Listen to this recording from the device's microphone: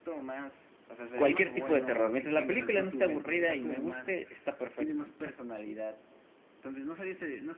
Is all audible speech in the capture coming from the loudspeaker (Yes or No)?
No